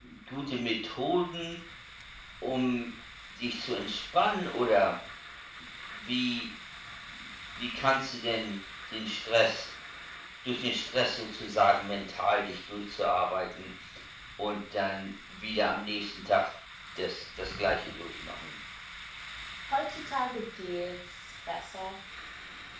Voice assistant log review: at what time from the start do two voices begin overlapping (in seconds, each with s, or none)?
none